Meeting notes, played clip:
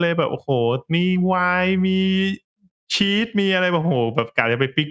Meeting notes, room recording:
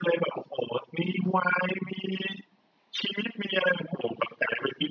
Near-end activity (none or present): none